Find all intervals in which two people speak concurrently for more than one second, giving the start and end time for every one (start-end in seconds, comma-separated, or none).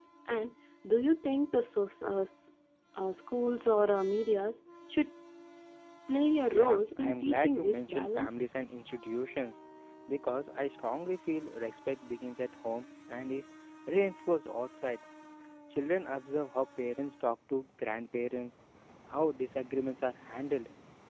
6.5-8.3